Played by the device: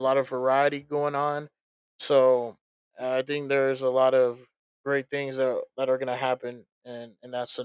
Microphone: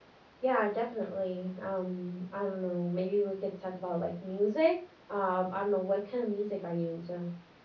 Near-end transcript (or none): Yeah, definitely. Um, I don't know. Maybe we could talk about like music. Um, I don't know what kind of music are you into?